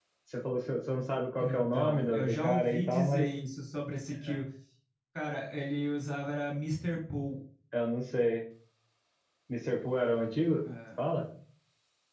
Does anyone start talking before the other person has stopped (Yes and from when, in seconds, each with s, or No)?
Yes, from 1.4 s